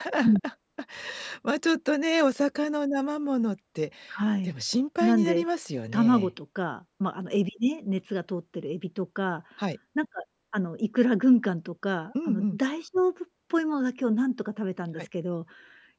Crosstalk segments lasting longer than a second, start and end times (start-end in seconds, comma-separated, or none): none